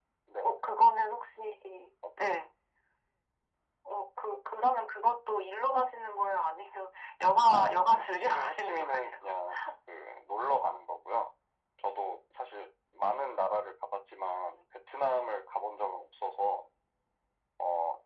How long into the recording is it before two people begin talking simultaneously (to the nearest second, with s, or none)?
7 s